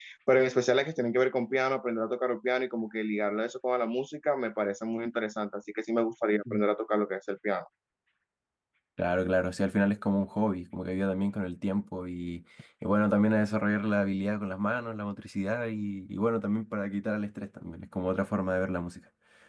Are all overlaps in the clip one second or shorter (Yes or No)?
Yes